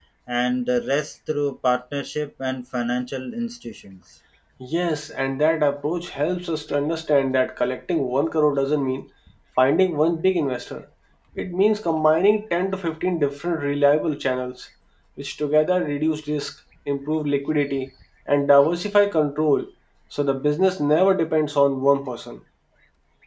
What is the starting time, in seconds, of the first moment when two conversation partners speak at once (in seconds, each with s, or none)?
none